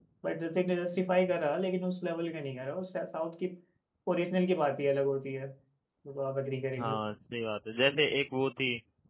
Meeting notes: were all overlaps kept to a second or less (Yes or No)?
Yes